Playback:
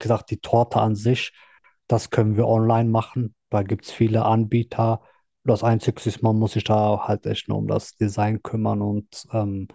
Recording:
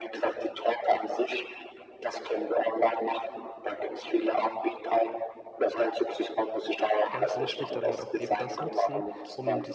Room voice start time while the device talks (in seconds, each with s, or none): 7.1 s